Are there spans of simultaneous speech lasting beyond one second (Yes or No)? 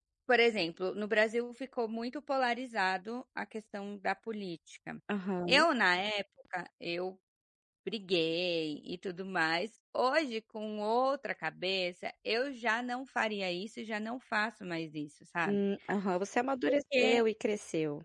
No